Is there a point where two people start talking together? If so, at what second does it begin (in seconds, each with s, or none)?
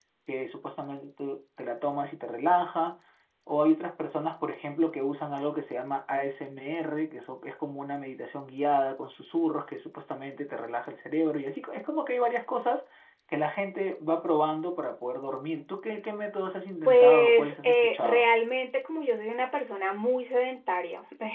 16.9 s